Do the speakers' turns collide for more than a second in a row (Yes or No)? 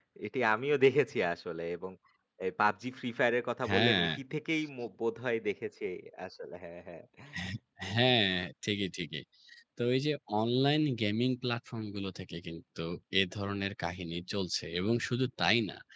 No